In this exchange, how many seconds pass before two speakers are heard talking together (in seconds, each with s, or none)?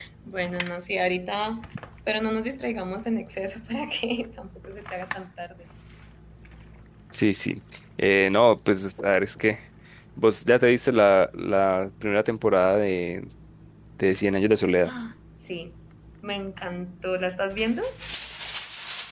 none